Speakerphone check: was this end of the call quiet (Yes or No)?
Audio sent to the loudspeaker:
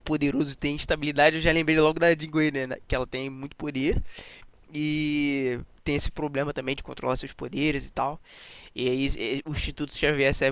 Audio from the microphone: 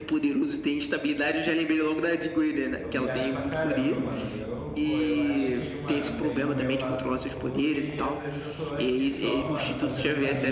No